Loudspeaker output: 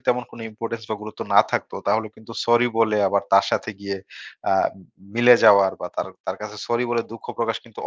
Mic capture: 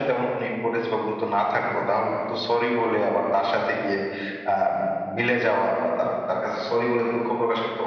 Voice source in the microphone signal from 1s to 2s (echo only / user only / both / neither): echo only